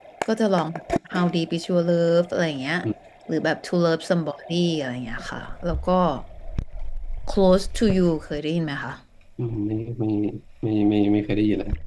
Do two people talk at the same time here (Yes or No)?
No